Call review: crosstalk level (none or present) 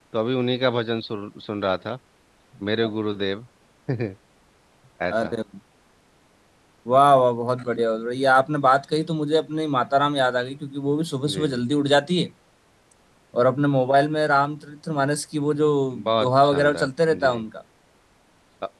present